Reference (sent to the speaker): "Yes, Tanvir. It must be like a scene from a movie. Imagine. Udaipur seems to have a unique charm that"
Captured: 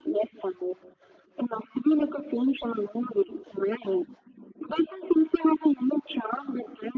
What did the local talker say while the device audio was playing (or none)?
none